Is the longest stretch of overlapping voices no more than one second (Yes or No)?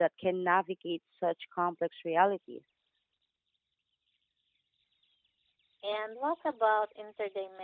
Yes